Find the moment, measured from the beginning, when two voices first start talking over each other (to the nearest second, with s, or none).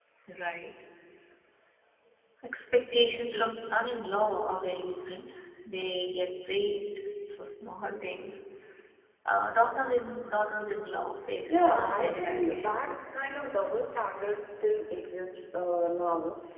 11 s